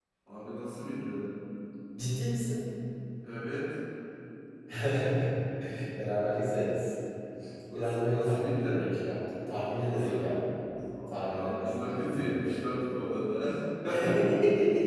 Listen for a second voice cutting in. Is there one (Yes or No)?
Yes